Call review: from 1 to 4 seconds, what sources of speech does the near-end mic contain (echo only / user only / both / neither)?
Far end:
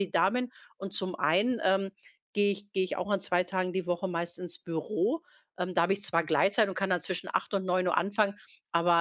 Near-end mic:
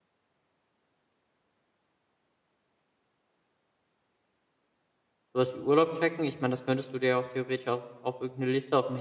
neither